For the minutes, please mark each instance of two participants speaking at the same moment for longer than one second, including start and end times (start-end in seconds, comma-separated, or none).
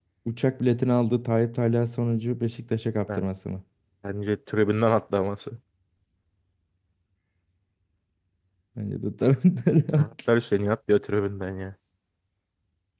none